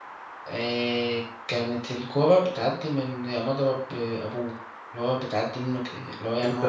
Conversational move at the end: taking over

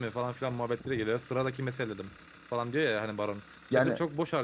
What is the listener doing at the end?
listening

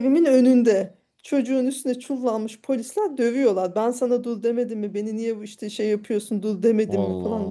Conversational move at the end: listening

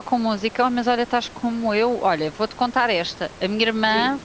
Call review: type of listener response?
listening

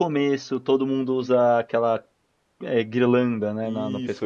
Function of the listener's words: taking over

